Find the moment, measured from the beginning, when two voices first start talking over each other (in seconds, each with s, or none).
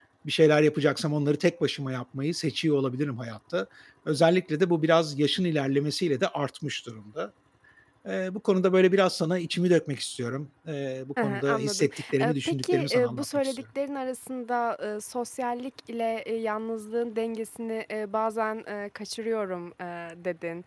11.2 s